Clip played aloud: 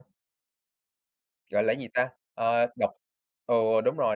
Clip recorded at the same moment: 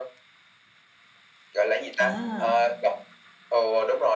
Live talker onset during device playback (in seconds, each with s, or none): 2.0 s